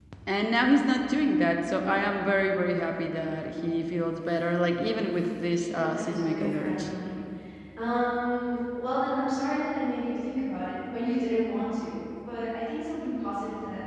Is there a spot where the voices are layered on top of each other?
Yes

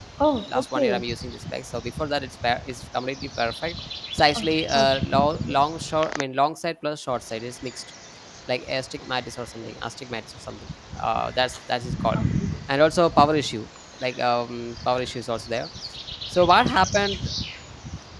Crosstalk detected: Yes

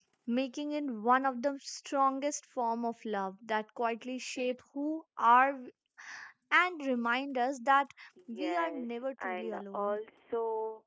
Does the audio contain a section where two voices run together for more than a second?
Yes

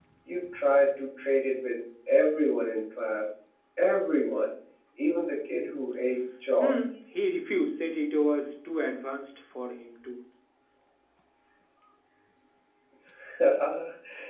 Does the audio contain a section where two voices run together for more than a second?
No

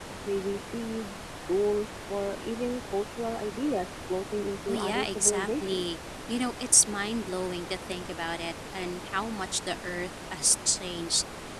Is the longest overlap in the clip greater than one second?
Yes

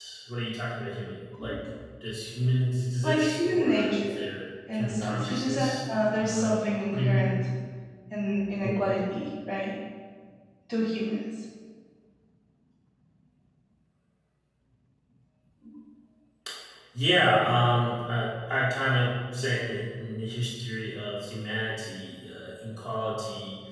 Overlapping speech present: Yes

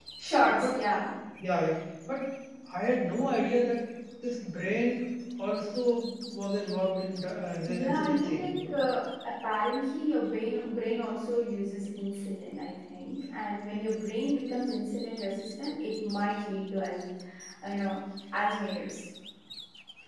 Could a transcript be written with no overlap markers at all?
No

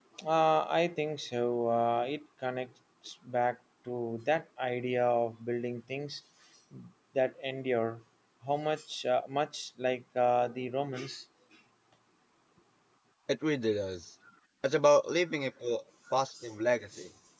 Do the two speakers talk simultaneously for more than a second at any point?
No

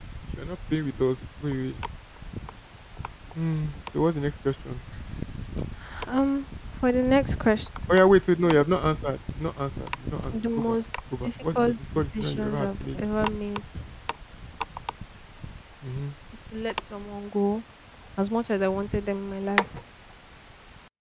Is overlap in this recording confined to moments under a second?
No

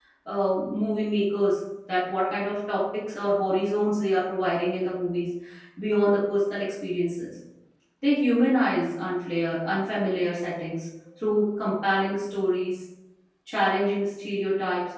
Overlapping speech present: No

